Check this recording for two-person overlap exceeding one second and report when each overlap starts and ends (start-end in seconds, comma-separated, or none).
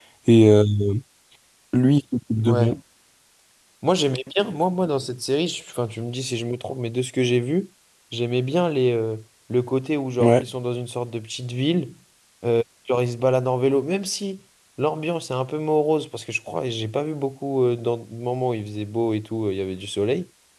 none